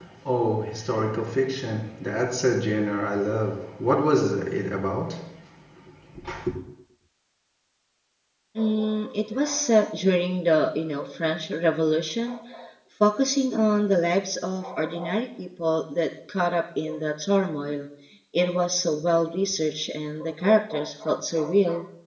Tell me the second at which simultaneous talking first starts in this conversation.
none

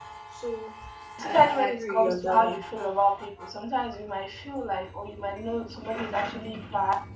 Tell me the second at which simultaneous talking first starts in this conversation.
1.2 s

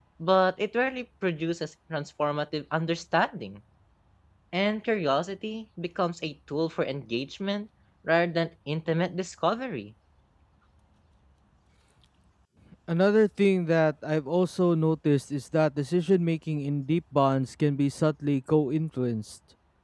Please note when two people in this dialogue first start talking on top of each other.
none

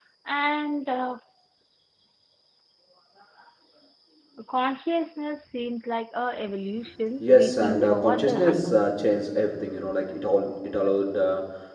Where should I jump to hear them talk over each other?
7.2 s

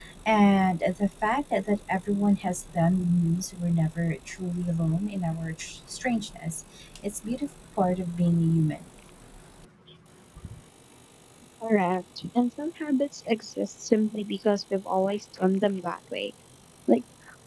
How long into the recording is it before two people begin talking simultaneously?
none

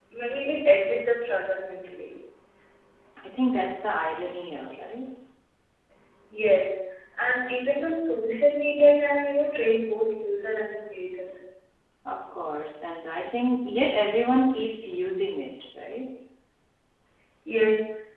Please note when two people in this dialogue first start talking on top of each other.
none

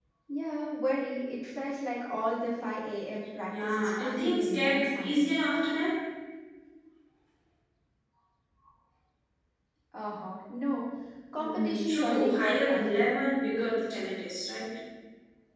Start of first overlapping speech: 3.5 s

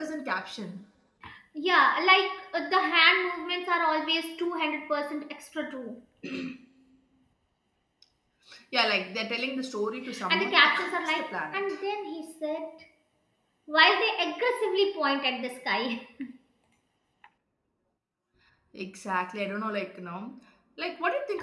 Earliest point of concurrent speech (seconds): 10.1 s

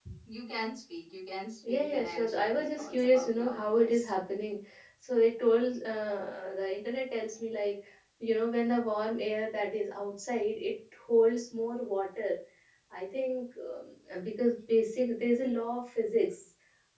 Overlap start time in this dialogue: 1.6 s

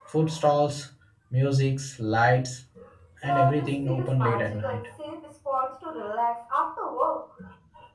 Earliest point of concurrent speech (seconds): 3.2 s

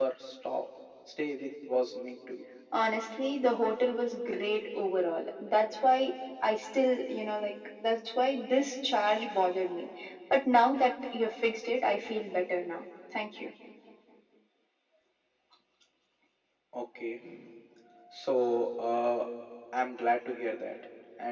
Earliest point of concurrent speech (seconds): none

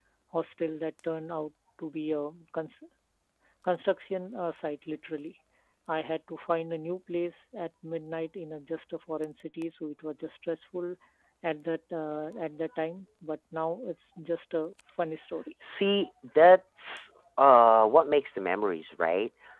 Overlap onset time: none

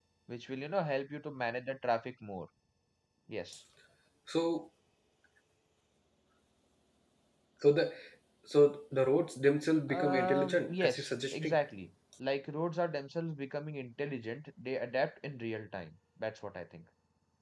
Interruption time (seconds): 9.9 s

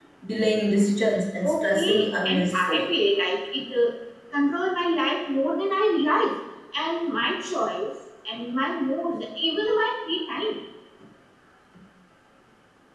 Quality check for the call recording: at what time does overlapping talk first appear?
1.4 s

